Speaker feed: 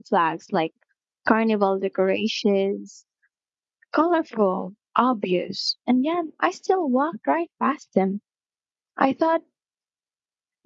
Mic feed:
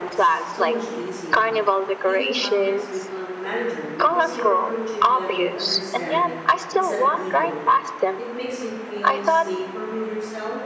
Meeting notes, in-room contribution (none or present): present